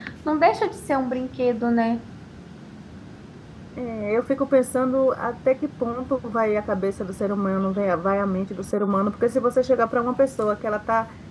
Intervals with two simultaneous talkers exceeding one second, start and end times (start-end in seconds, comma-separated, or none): none